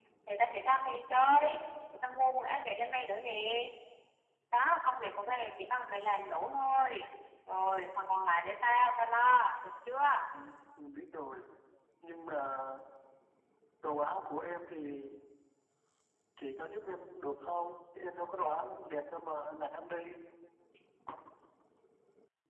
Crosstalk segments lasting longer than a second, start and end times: none

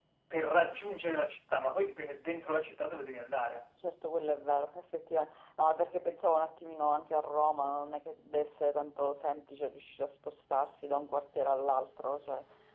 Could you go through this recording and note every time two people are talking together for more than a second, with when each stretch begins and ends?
none

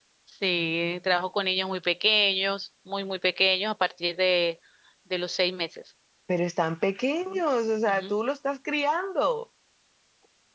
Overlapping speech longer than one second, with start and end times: none

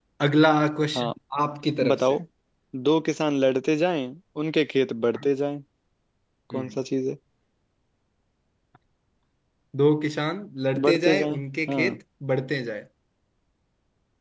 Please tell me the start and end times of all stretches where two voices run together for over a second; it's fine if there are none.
10.8-12.0

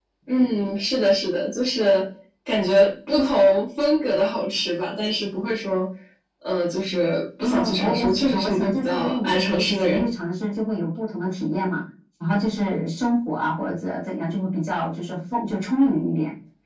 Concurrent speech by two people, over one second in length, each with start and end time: 7.4-10.1

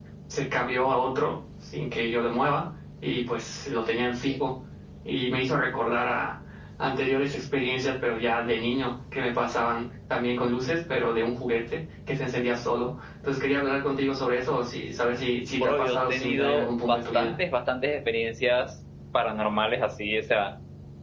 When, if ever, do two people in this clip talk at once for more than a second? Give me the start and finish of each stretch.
15.5-17.3

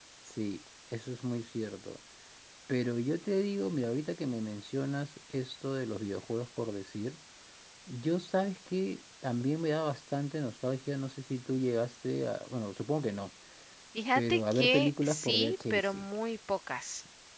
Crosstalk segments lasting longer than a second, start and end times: 14.2-16.0

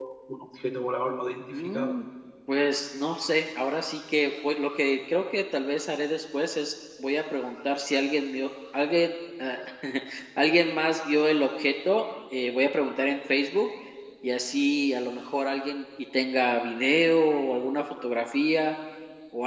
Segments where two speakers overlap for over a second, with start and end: none

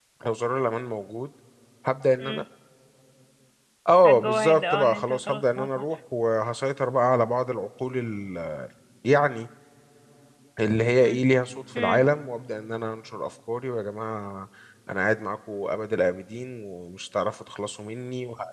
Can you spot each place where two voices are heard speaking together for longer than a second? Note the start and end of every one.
4.0-5.8

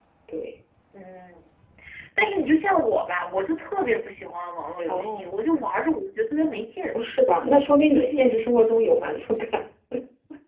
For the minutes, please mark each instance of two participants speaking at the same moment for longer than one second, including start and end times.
none

